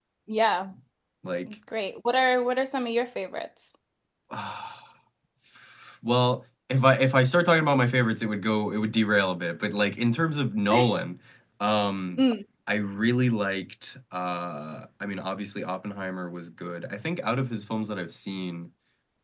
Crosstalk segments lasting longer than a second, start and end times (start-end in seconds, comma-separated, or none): none